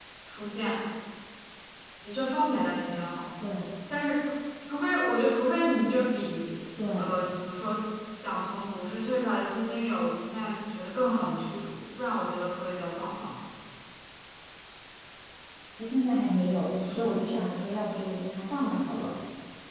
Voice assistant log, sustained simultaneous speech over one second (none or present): none